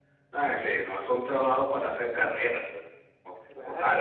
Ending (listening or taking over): taking over